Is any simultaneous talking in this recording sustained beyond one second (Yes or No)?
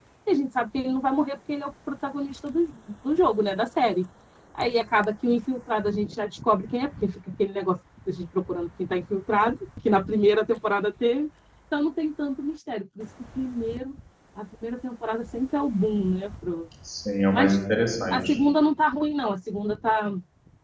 No